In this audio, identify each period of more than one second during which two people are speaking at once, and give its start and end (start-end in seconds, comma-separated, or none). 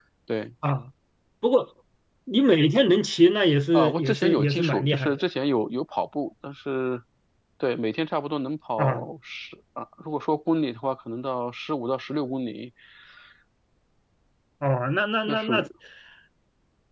3.7-5.2